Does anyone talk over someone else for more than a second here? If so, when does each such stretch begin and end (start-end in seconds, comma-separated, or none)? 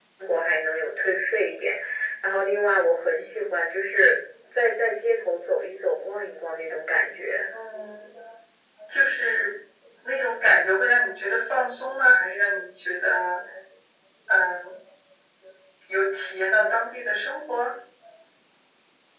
none